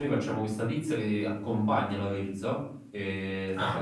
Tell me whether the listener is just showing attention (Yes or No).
Yes